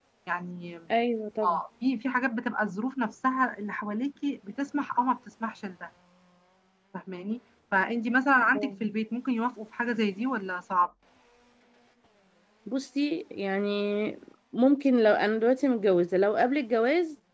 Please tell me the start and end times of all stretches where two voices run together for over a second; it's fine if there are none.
none

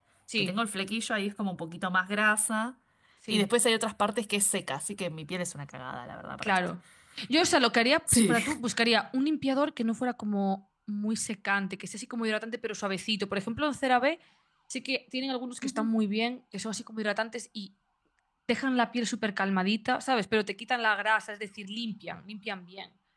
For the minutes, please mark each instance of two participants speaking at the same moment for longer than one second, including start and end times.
none

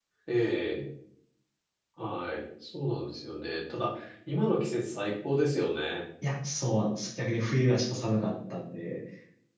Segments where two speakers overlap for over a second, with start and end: none

